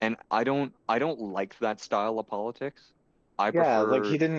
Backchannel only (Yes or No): No